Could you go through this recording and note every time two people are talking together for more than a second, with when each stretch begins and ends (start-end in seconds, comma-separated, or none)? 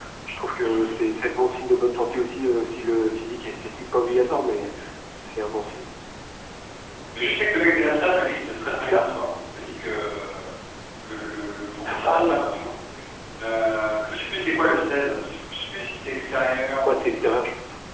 none